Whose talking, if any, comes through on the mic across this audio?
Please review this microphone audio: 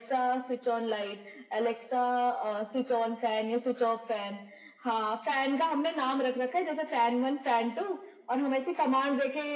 echo only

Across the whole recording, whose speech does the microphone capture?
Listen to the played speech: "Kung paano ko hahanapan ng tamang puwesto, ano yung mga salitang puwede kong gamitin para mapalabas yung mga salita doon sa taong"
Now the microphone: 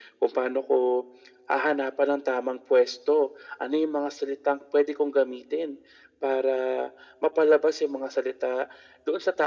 echo only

